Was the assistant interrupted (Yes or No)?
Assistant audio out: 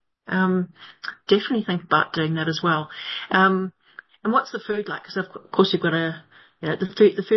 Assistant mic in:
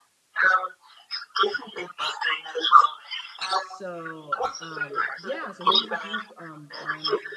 Yes